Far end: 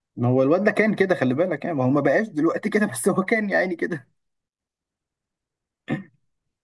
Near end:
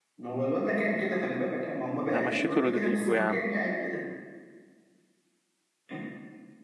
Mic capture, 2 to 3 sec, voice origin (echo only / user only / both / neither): both